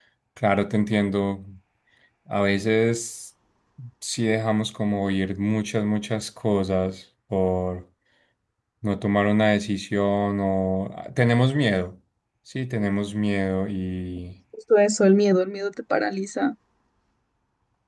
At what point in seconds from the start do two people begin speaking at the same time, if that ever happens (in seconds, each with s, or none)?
none